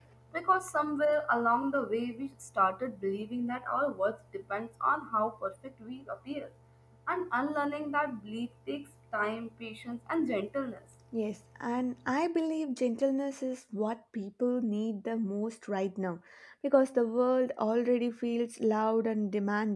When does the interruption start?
none

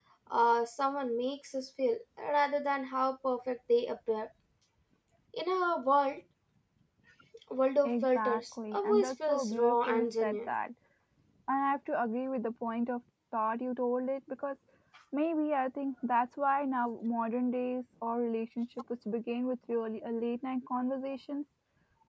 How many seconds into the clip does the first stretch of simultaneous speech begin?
7.8 s

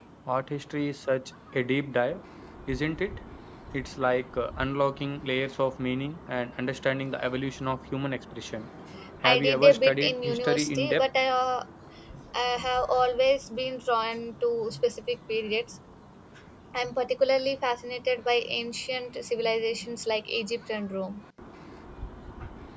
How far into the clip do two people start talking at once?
9.2 s

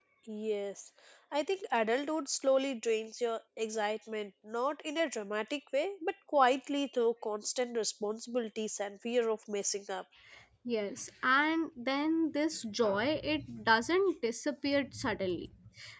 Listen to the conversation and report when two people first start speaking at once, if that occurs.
none

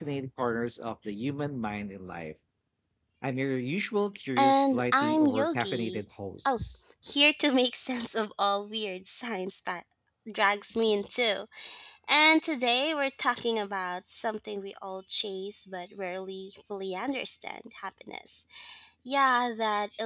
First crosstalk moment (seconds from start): 4.4 s

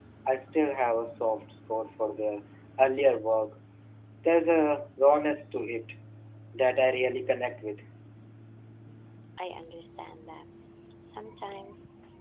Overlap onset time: none

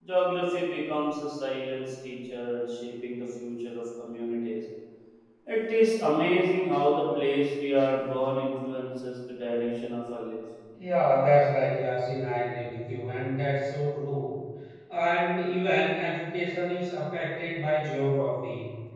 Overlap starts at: none

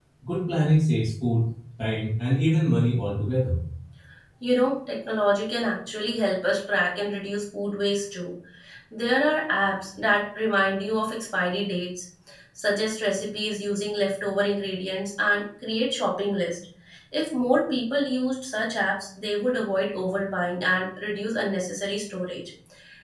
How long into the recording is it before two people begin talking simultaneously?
none

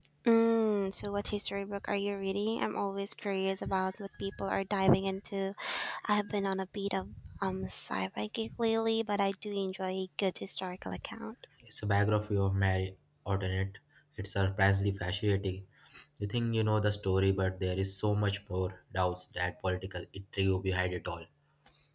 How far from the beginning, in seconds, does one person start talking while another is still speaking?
none

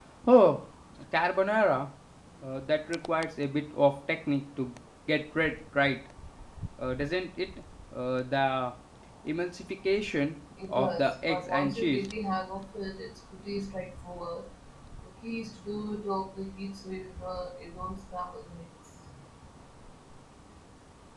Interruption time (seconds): 10.6 s

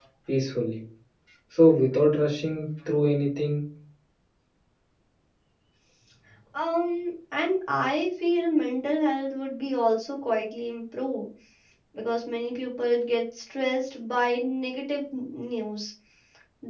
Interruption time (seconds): none

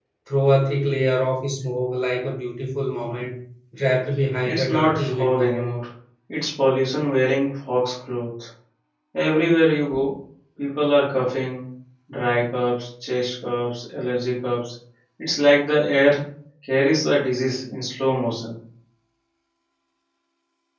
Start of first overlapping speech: 4.4 s

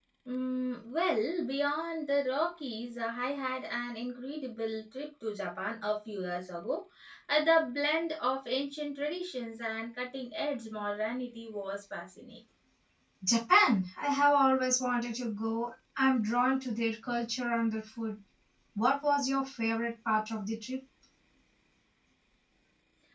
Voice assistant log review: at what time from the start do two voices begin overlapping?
none

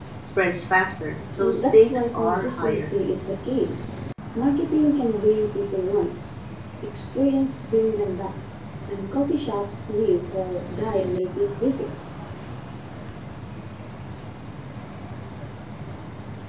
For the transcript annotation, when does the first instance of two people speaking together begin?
1.0 s

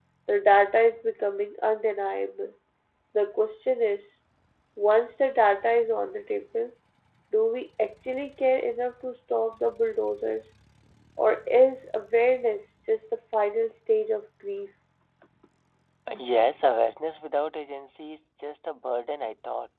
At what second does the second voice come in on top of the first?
none

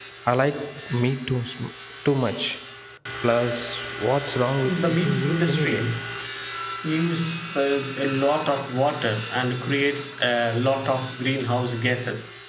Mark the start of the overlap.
4.6 s

